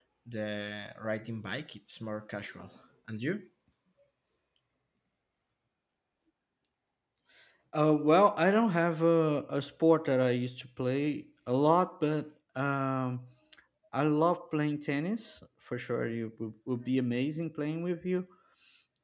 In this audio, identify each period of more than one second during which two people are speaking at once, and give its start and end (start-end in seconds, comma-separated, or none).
none